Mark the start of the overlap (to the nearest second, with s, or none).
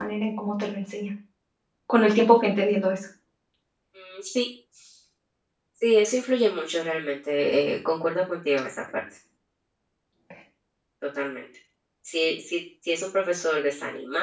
none